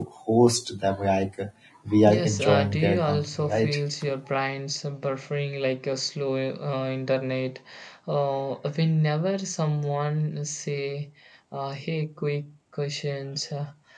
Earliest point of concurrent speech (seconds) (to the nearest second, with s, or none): 2 s